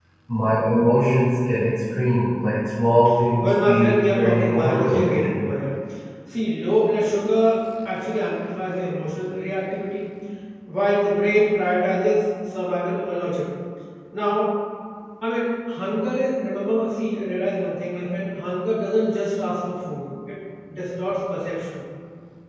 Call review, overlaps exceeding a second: present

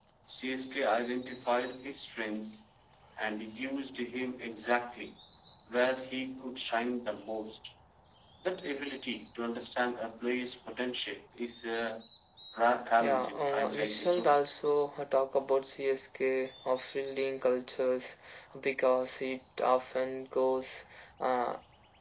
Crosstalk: present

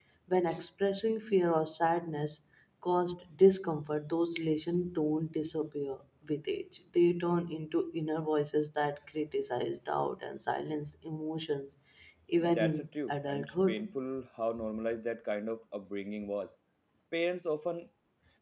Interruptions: present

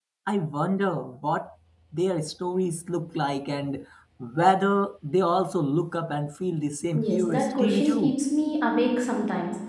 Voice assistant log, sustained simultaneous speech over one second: present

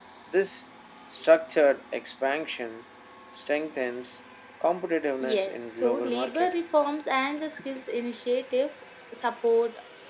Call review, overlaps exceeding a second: present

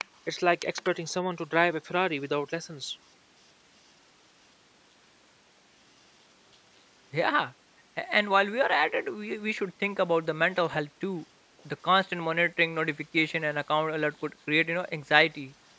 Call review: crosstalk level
none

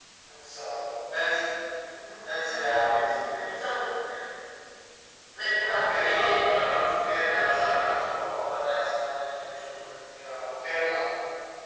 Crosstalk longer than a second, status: present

